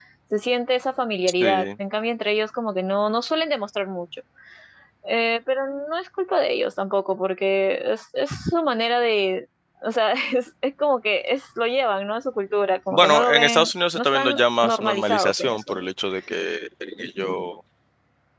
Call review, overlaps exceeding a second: present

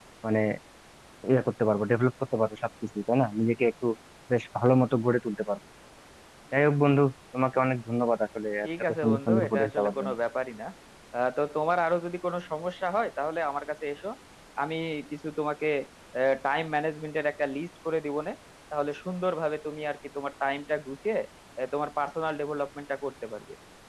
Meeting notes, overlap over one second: present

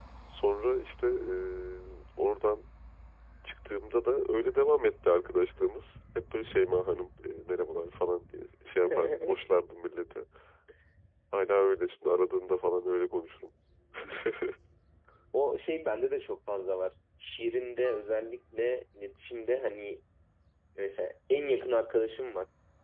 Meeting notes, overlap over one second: none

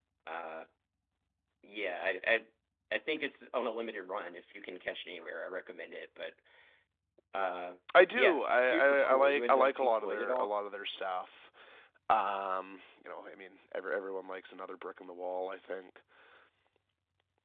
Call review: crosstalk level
present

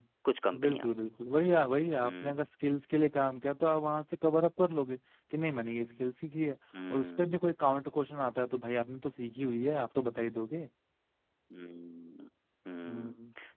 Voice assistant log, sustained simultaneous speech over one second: none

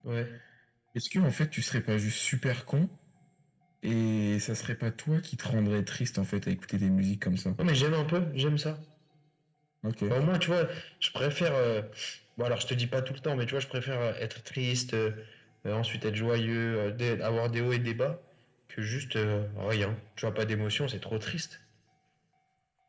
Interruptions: none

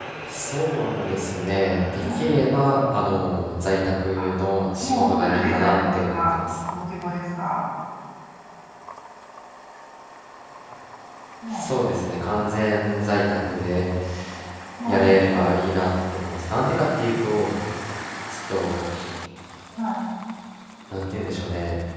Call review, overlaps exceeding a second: present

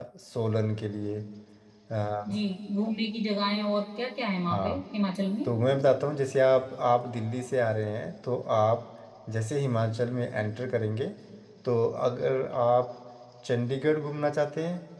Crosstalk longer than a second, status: none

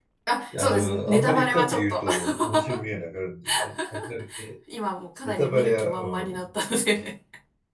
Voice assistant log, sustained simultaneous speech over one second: present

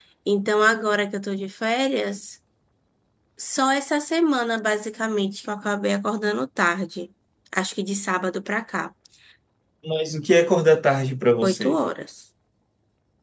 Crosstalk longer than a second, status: none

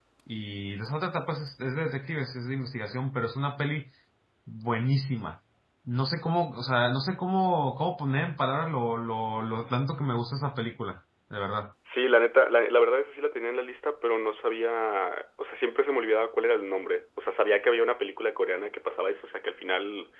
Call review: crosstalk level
none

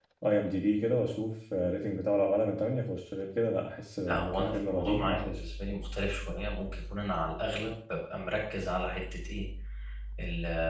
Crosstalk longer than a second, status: present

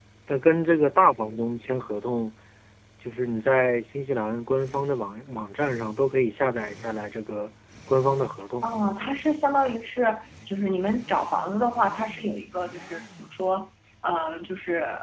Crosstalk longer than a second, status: none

